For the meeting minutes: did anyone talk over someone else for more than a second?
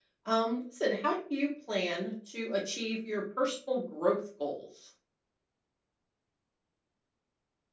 No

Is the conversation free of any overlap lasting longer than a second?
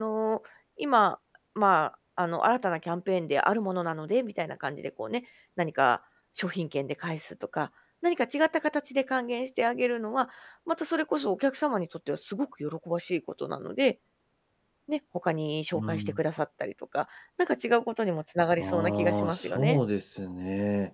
No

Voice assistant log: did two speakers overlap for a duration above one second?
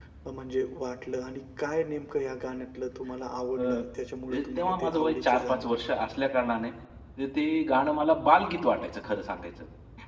Yes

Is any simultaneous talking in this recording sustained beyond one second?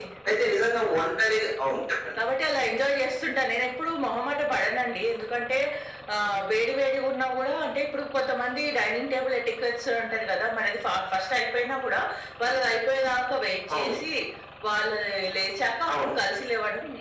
No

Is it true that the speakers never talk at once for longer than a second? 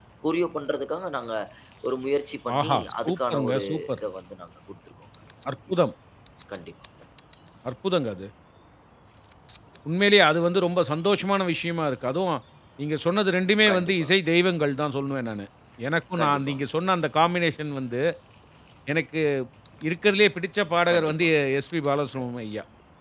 No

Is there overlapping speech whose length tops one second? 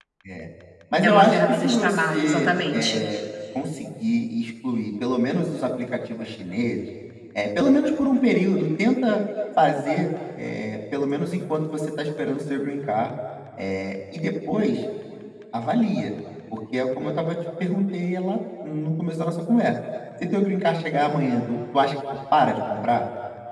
Yes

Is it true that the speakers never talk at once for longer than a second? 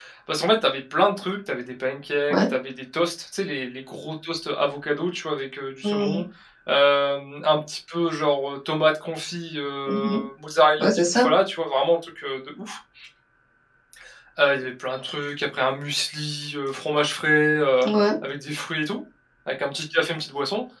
Yes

